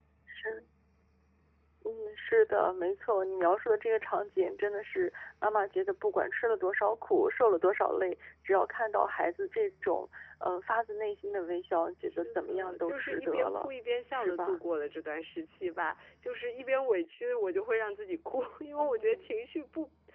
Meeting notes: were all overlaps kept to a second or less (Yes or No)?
No